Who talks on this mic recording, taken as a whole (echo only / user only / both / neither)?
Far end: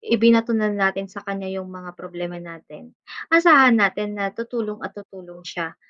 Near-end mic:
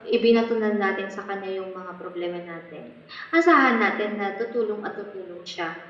echo only